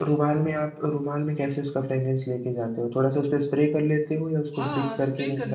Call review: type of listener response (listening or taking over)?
taking over